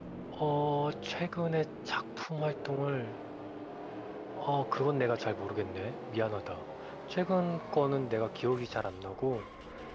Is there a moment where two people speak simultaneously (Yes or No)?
No